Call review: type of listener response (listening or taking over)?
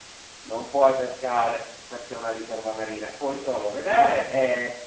listening